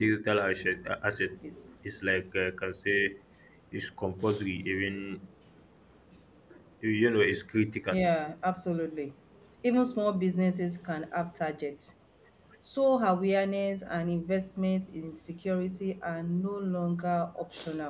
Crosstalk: none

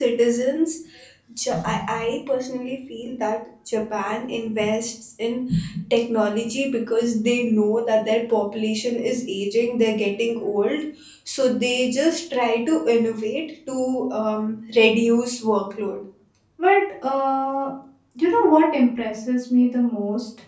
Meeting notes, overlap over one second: none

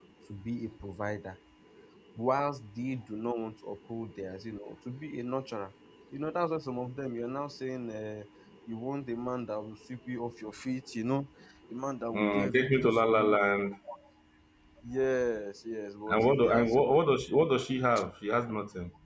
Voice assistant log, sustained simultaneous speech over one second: present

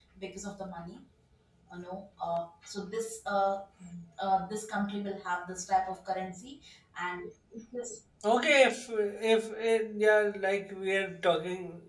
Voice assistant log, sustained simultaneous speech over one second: none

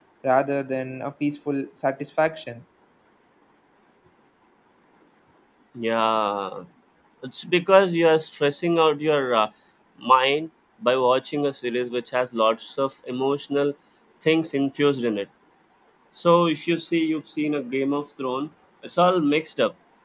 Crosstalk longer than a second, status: none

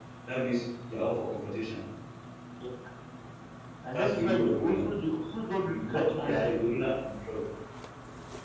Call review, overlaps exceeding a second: present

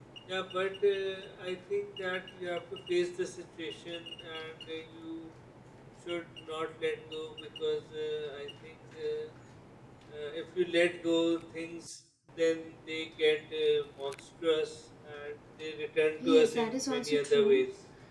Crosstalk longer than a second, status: present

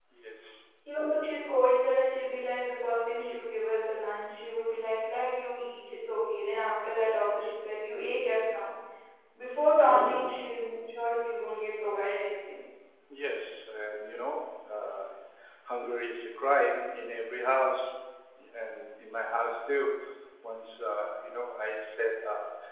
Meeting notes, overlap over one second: none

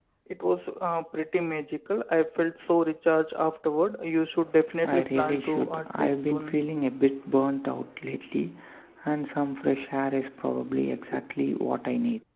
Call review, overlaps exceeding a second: present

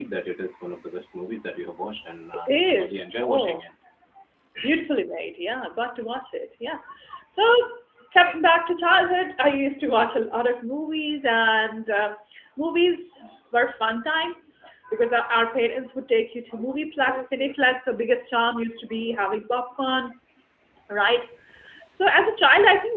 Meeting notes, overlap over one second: present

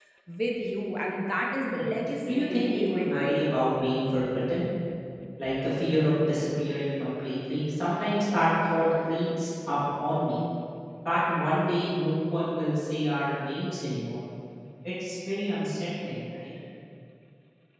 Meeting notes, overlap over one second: present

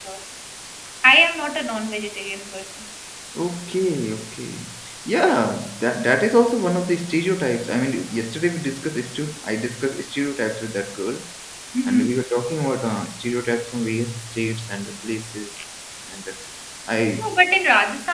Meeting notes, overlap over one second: none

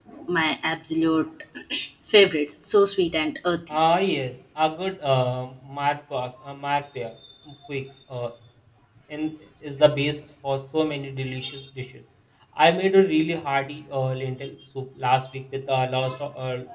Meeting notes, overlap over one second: none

